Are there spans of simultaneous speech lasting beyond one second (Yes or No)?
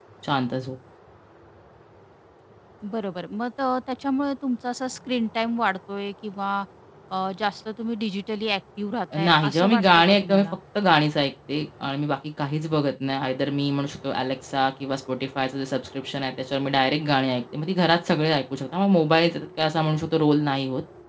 Yes